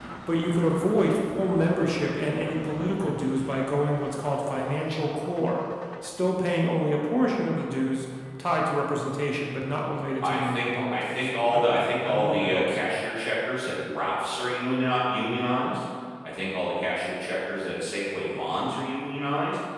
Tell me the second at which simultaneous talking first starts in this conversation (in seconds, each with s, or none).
10.2 s